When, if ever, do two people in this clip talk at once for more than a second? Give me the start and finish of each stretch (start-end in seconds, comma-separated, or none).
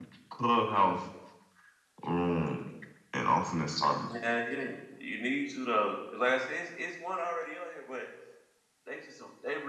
none